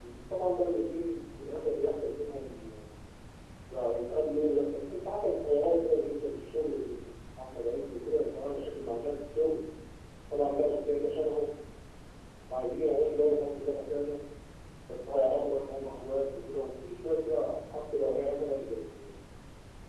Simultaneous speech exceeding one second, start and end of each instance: none

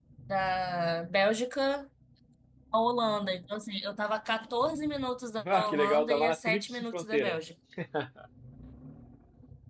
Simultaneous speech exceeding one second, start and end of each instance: 5.5-7.4

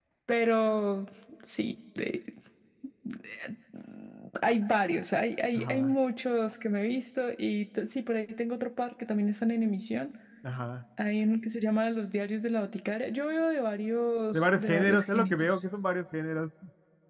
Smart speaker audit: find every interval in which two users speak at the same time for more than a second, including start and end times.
14.3-15.6

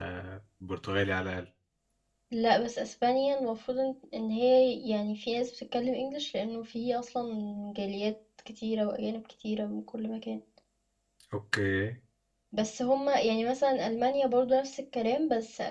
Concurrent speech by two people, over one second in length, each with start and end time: none

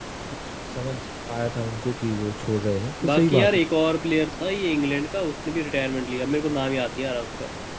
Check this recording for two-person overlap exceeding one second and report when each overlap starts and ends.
none

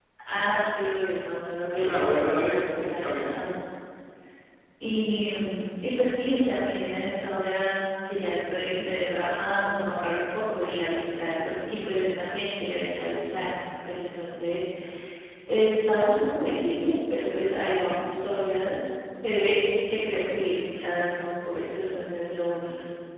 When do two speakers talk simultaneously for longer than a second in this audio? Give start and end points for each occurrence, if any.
1.8-3.5

